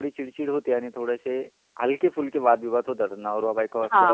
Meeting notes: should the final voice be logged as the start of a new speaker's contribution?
Yes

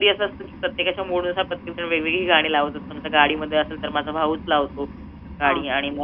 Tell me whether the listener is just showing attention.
Yes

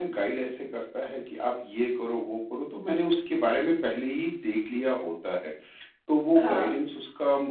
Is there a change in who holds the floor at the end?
No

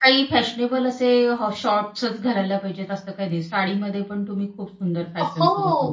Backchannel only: No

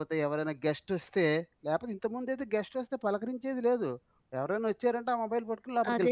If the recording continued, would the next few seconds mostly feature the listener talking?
Yes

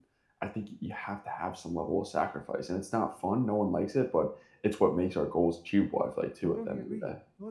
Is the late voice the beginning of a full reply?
Yes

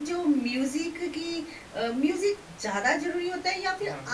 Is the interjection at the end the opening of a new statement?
No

